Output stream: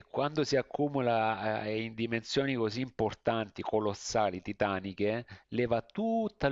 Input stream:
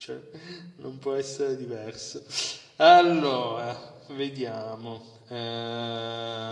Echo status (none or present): none